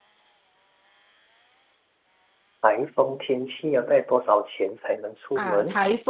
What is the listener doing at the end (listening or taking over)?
taking over